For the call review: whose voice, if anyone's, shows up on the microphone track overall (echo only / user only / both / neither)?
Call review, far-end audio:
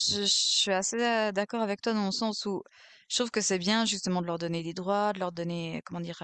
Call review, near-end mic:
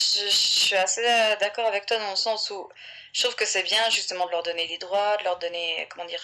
echo only